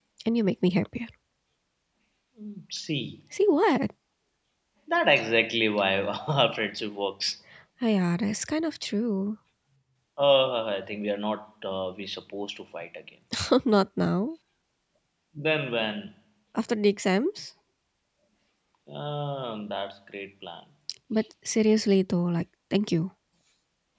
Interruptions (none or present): none